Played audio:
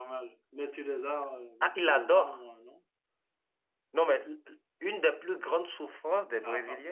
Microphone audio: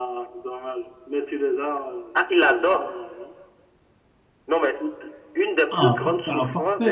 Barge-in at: 5.7 s

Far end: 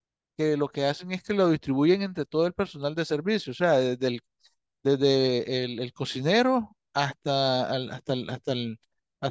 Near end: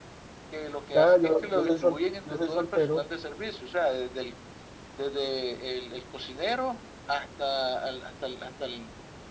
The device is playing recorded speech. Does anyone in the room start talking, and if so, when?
0.9 s

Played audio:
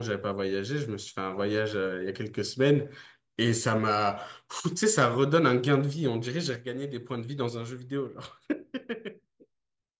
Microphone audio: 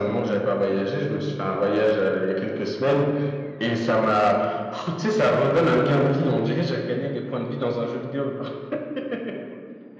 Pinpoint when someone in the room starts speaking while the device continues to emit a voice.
none

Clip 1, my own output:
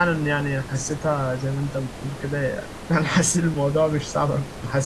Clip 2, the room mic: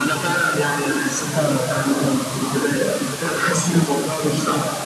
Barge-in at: none

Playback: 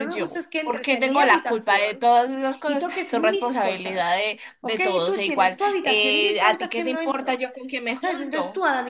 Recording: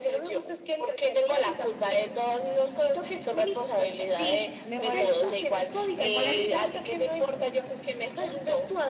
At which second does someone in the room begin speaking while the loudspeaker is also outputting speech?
4.2 s

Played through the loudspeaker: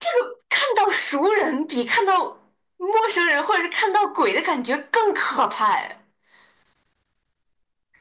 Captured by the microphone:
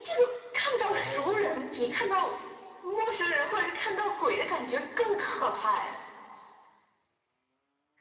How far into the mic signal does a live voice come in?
0.8 s

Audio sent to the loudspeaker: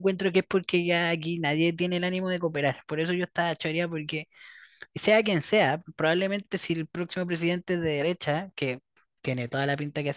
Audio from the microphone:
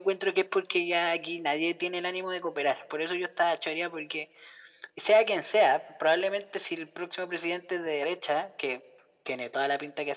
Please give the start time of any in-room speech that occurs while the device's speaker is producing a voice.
none

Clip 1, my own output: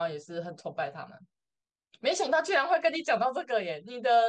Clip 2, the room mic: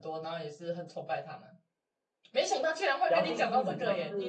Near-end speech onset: 3.1 s

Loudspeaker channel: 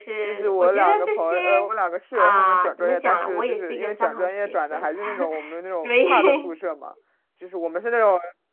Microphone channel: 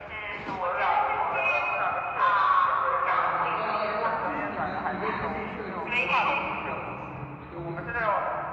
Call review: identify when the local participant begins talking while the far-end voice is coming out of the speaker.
3.0 s

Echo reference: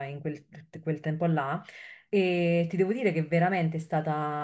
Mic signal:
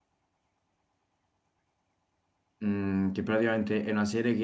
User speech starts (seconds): 2.6 s

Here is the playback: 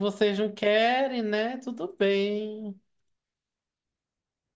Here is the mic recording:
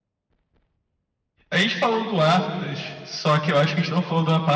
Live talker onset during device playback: 1.5 s

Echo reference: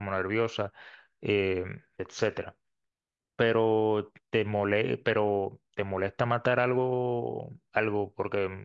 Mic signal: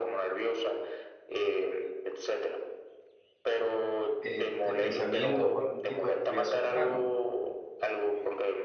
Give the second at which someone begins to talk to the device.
4.2 s

